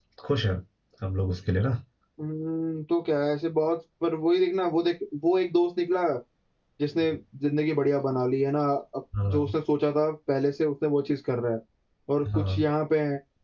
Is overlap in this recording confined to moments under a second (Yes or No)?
Yes